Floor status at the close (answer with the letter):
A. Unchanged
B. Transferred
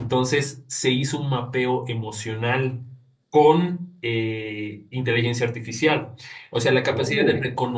A